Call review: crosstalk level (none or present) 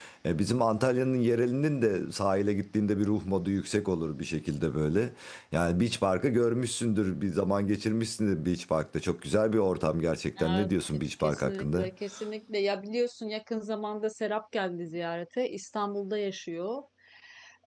present